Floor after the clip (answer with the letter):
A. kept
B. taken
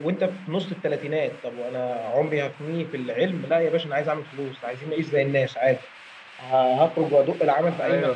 A